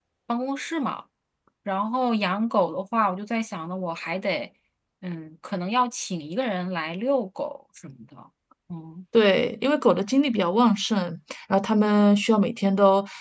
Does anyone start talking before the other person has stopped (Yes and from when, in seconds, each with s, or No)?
No